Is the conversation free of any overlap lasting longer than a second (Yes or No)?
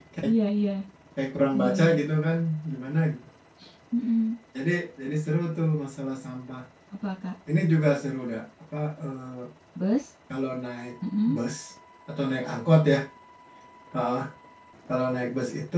Yes